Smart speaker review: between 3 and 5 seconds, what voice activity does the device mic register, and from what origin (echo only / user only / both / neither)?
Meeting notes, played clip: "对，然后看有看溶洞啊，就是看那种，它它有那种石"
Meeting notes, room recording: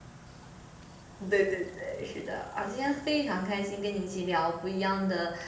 user only